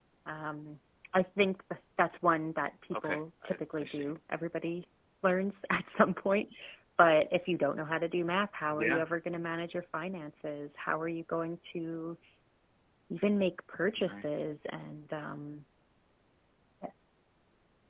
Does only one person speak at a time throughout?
No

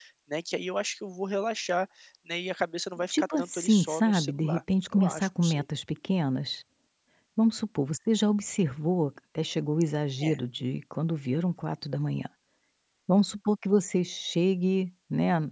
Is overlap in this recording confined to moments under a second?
No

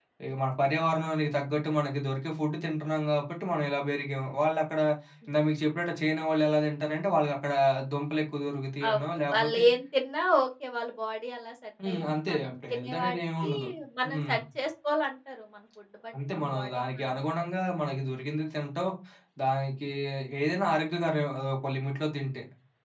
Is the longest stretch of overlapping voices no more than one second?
No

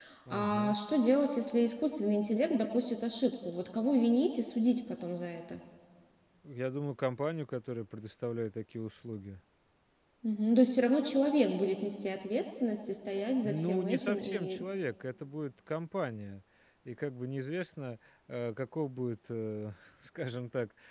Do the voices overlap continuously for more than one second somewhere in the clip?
Yes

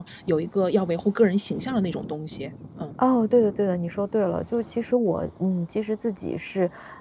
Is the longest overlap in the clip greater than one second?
No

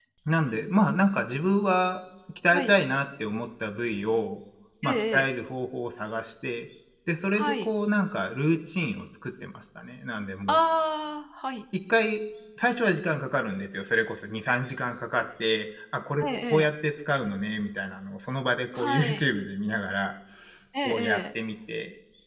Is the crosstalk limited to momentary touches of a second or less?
Yes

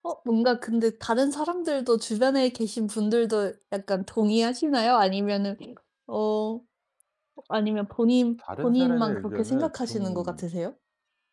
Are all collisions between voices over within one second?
No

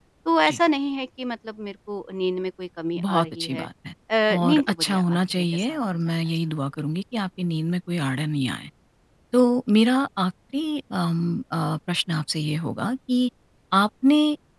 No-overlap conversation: No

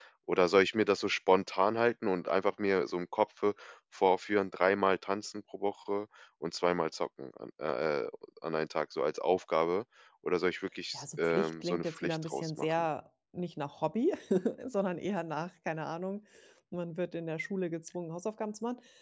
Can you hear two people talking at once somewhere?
Yes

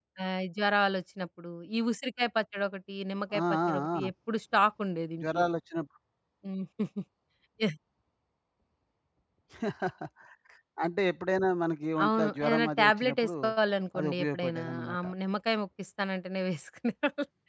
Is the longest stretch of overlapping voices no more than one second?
No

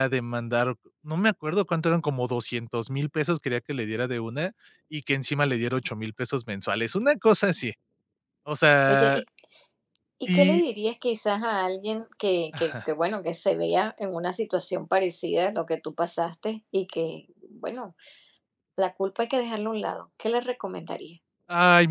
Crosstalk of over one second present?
No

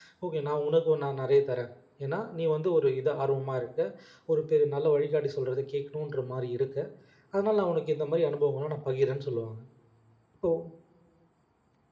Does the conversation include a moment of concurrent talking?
No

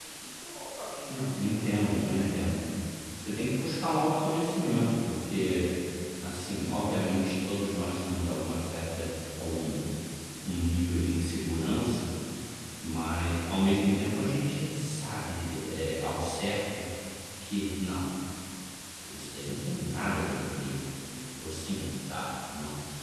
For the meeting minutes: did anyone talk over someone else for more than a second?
Yes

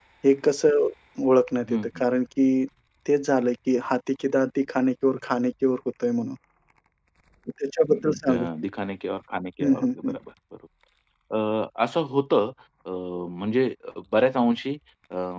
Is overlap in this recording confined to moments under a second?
Yes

